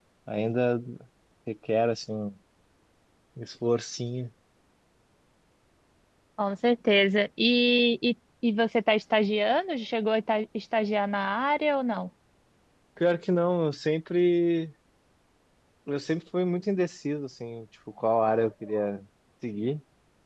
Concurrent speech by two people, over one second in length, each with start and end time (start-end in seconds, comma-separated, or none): none